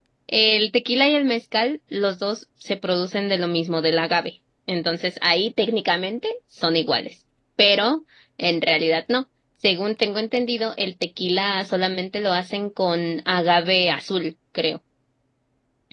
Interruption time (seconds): none

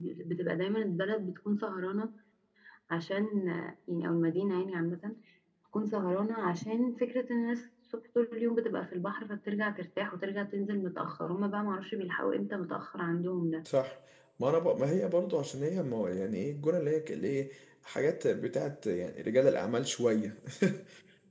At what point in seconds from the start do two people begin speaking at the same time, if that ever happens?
none

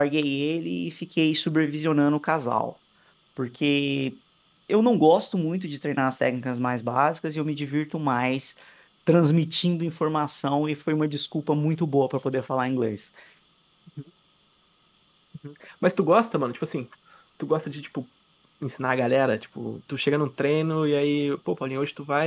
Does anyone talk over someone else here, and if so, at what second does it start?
none

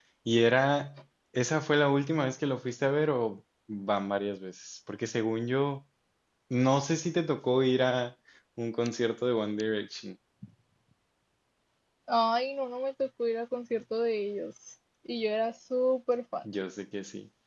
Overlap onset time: none

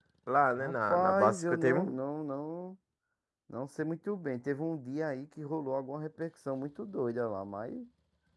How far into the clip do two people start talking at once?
1 s

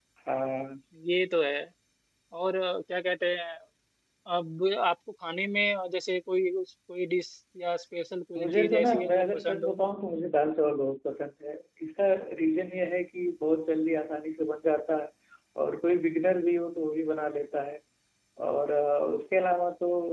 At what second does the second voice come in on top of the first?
8 s

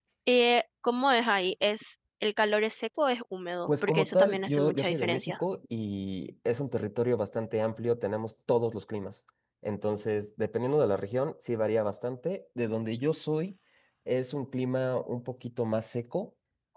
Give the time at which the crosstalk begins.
4 s

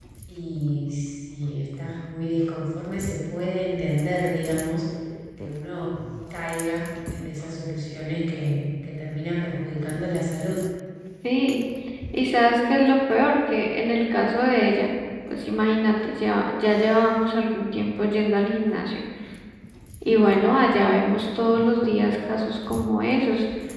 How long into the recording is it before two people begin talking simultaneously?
none

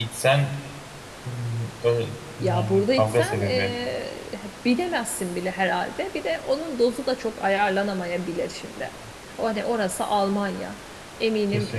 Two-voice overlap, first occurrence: 2 s

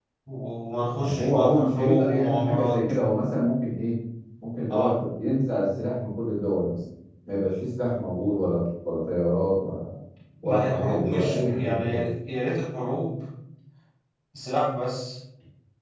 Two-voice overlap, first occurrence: 1 s

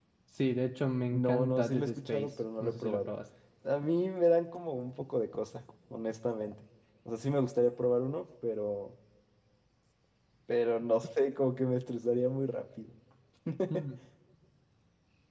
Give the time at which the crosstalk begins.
1 s

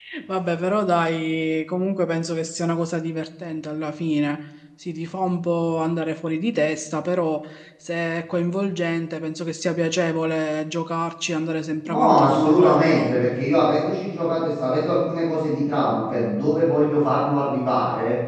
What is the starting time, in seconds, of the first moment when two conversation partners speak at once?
12 s

